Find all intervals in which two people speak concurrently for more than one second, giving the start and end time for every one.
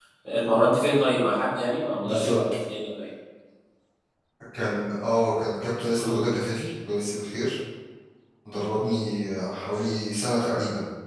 none

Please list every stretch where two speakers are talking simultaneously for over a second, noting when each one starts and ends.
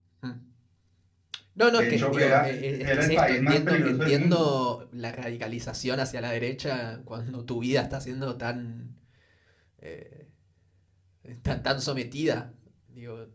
1.7-4.4

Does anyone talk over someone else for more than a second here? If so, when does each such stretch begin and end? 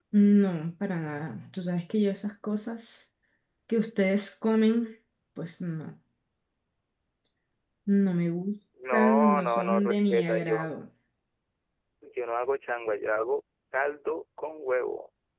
8.9-10.7

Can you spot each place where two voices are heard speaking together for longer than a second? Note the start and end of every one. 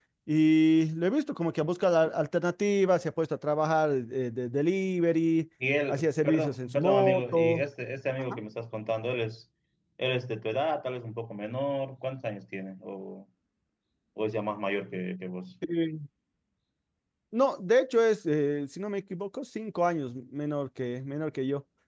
5.9-7.6

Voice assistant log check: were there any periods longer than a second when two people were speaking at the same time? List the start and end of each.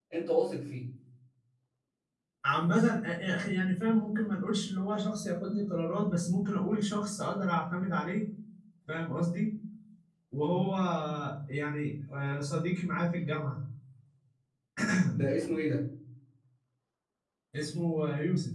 none

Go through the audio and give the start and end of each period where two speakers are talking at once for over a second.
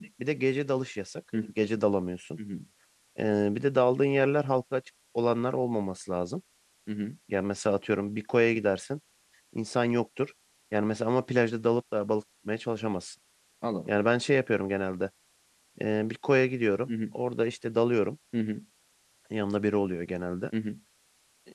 none

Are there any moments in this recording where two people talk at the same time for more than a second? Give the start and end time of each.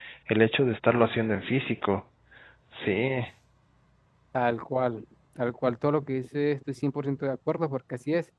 none

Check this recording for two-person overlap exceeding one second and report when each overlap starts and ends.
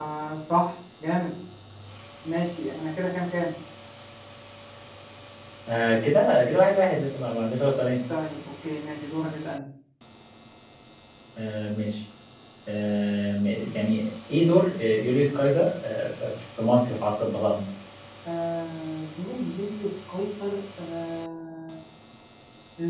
none

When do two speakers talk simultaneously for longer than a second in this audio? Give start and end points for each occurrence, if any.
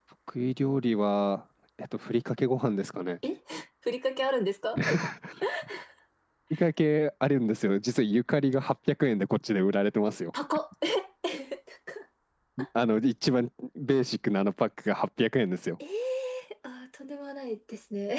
none

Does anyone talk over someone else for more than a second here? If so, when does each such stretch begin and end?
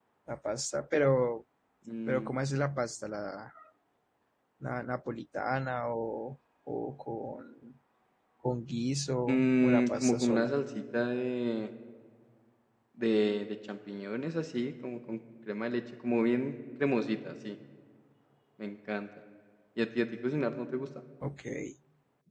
9.3-10.5

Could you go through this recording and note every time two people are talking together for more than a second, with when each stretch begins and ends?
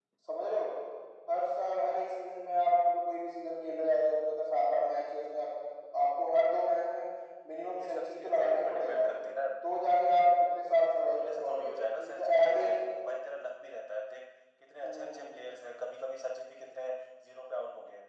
7.6-9.0, 11.0-12.7

